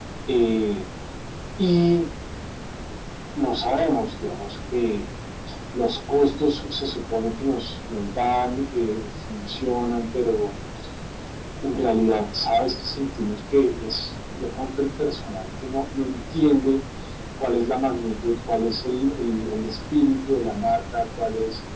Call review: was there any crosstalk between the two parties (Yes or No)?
No